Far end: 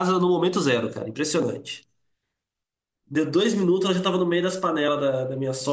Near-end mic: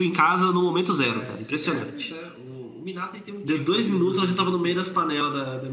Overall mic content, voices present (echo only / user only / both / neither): both